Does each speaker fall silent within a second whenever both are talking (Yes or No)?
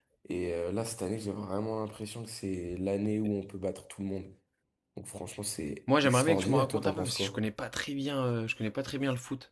No